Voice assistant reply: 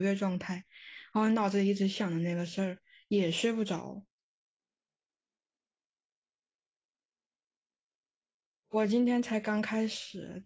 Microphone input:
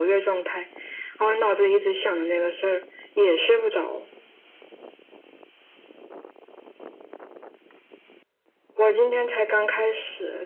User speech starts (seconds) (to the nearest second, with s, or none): none